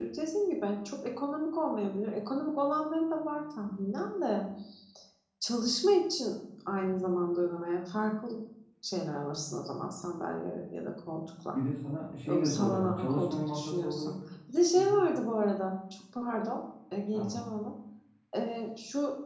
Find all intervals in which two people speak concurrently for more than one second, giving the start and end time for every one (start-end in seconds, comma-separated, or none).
12.2-14.1